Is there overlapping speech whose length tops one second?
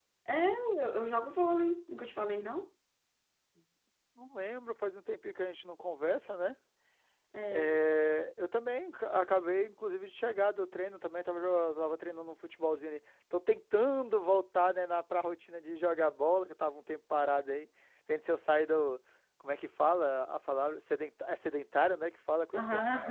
No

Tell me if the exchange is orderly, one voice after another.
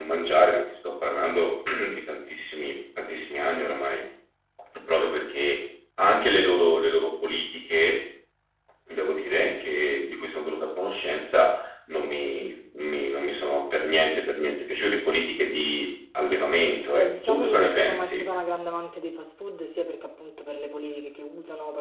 No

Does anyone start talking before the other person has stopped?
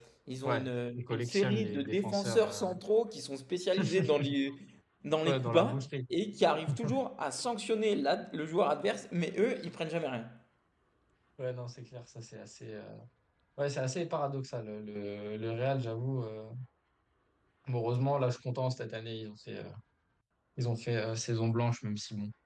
Yes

